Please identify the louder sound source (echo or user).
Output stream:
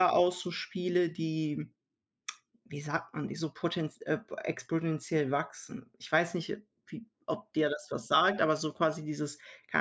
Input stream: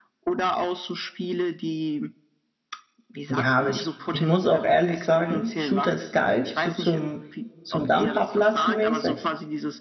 user